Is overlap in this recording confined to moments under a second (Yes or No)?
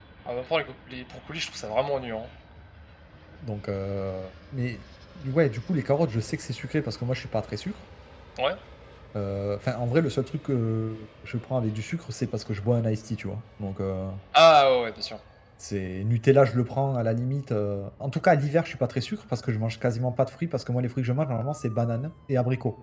Yes